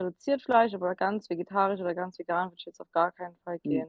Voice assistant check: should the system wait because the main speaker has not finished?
No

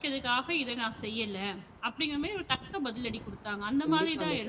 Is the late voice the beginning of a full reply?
Yes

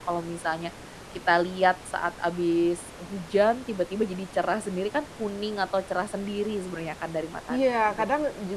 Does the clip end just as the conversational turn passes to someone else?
Yes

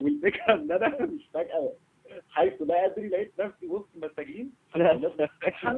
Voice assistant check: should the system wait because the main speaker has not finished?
No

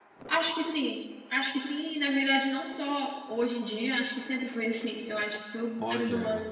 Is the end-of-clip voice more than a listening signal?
No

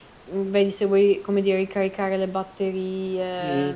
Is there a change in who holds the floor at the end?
Yes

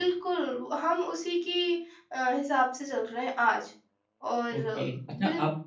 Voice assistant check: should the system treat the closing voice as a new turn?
Yes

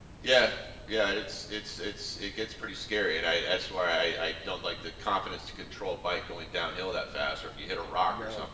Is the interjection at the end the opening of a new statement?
No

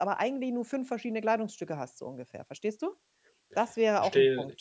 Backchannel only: No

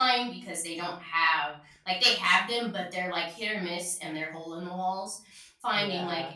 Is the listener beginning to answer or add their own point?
No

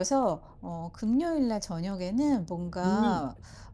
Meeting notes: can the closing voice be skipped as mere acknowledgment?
Yes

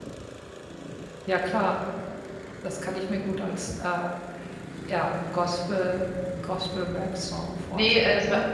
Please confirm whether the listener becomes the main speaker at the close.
Yes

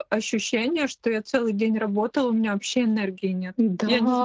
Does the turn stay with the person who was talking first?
No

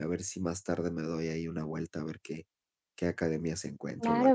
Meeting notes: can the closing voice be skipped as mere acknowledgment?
No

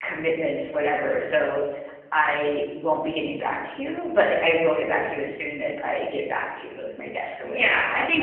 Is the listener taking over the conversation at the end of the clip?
Yes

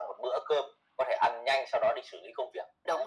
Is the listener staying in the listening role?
No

